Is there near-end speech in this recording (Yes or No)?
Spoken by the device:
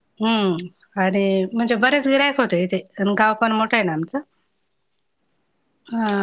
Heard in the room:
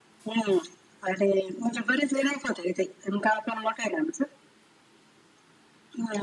No